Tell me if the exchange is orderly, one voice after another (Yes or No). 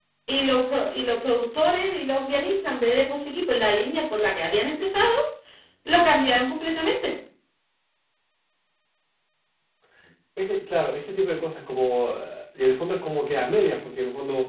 Yes